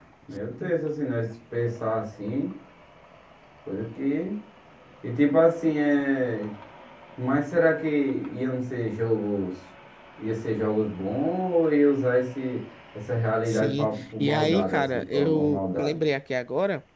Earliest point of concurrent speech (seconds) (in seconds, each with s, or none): 13.5 s